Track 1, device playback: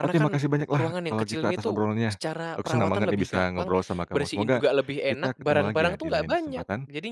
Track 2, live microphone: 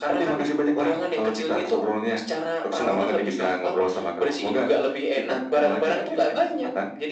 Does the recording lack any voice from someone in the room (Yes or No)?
Yes